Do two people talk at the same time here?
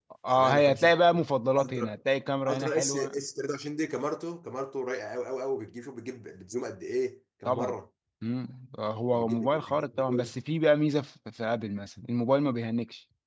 Yes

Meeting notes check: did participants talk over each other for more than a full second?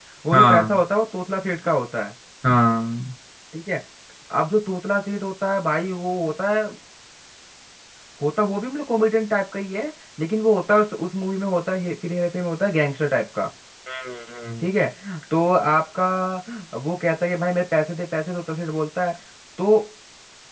No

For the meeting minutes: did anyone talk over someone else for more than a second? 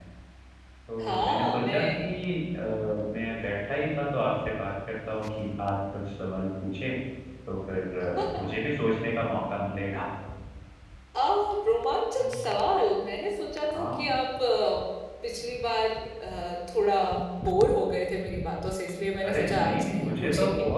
Yes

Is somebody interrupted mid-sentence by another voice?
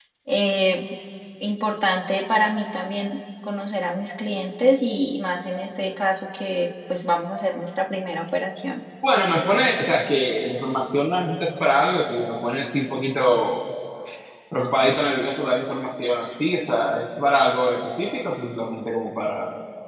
No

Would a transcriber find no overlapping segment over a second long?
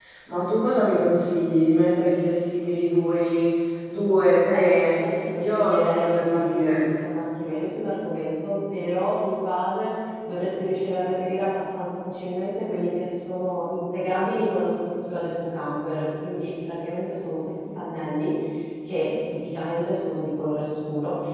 No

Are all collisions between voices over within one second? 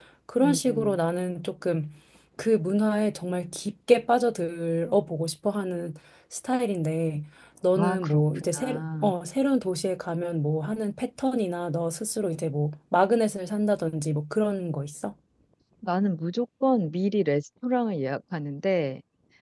No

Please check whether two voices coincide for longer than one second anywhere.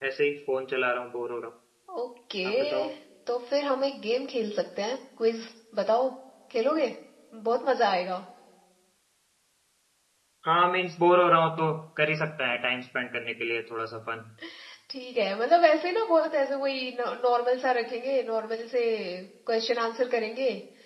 No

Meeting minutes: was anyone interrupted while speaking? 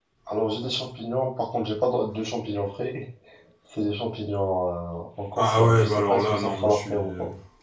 Yes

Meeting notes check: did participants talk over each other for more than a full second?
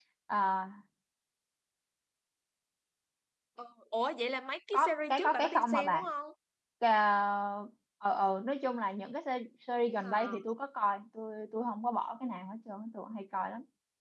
Yes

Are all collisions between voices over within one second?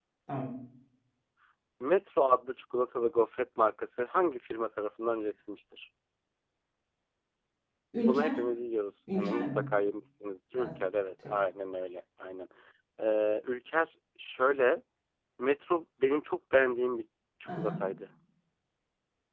Yes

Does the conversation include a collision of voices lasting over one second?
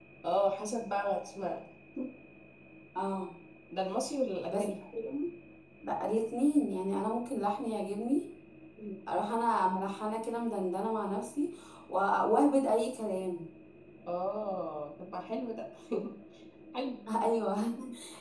No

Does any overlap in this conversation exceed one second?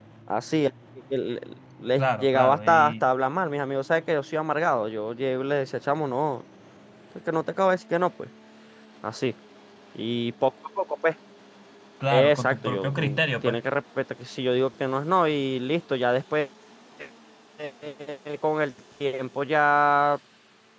Yes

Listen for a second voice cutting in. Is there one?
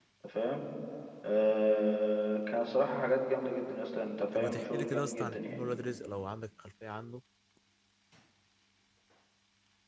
Yes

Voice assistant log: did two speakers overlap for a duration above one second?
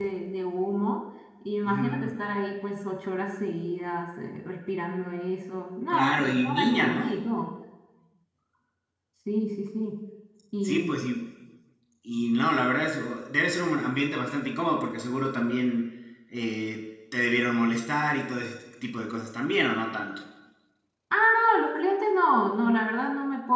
Yes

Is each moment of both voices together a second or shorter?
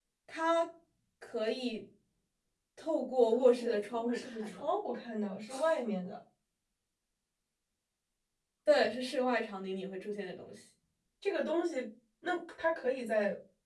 No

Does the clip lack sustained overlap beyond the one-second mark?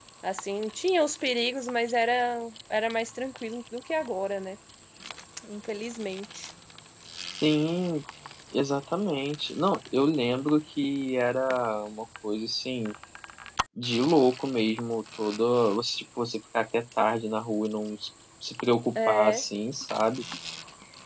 Yes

